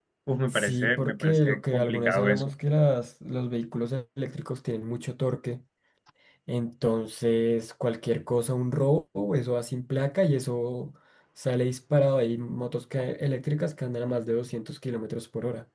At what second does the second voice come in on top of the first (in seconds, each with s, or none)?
0.5 s